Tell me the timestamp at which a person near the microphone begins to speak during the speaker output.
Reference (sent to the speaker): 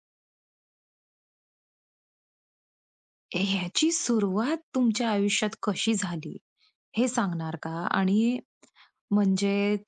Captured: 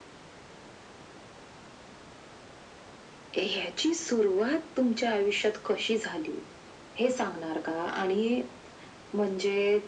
none

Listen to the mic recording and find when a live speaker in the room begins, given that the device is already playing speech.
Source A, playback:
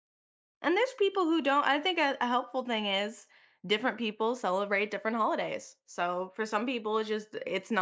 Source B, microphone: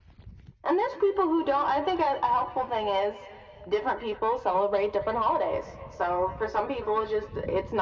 none

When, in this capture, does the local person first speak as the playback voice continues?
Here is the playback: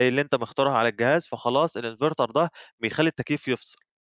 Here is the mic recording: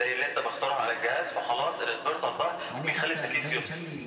2.7 s

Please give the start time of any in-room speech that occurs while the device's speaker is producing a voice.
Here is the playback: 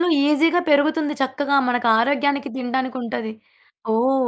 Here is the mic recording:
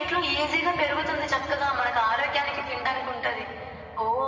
none

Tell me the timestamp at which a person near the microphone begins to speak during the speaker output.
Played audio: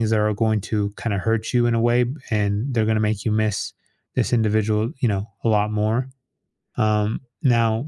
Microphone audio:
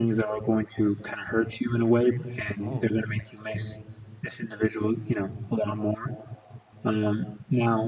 2.6 s

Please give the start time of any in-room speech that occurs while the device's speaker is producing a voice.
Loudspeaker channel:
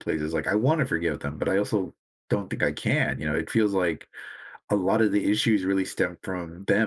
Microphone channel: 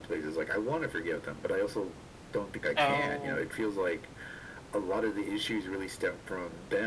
2.8 s

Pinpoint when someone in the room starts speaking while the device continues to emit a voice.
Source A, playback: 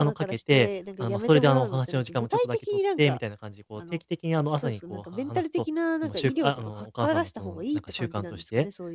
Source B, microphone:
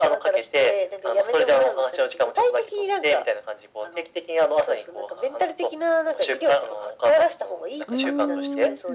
7.9 s

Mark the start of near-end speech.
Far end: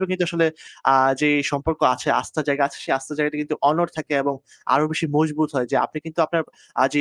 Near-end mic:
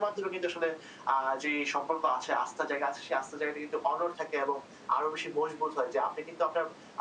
none

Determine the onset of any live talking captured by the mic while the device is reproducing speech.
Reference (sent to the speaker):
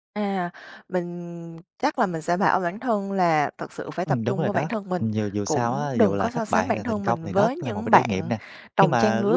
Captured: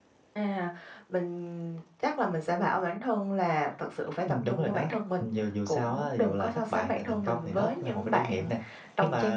none

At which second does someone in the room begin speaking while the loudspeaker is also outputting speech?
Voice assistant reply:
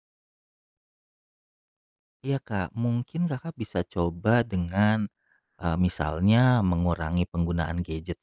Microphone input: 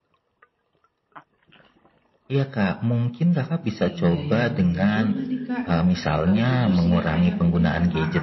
3.8 s

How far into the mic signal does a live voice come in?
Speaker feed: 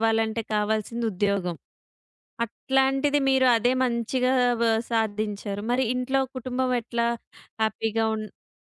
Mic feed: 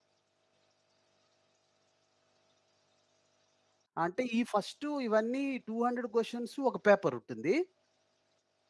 4.0 s

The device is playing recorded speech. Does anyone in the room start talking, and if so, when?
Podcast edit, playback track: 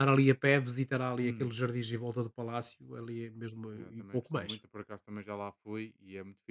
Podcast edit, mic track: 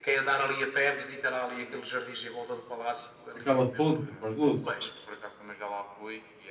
3.4 s

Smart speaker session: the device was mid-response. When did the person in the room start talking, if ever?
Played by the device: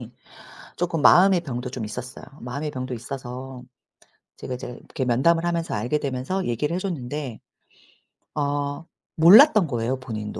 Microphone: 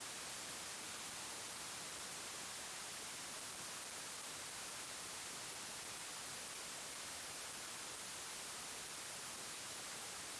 none

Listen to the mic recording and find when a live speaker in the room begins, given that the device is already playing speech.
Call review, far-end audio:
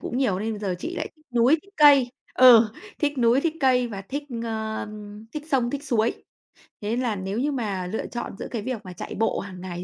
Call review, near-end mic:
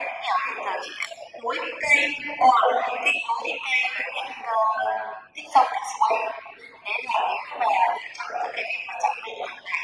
none

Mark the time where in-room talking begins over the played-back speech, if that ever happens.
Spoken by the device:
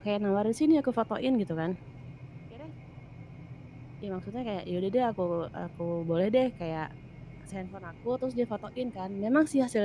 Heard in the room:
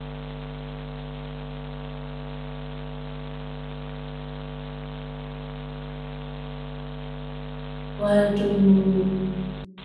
8.0 s

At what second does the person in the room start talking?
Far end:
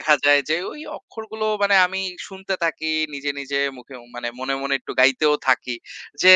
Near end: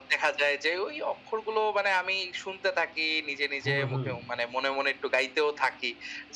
3.6 s

